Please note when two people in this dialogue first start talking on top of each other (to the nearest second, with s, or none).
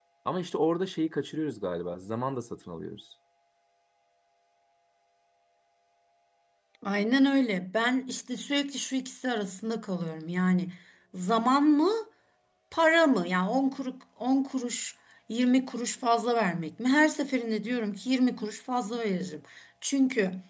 none